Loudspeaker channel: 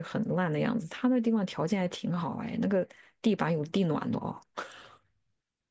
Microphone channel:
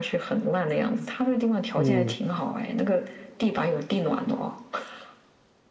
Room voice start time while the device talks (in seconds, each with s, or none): 1.8 s